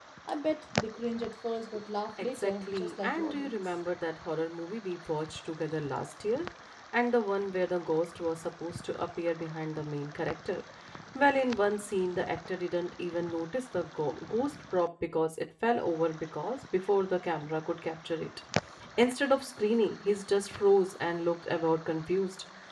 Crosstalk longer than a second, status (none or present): present